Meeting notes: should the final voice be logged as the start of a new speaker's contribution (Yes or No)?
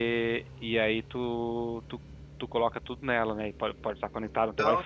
No